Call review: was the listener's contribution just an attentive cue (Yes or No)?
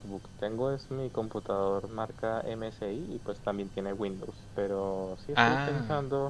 Yes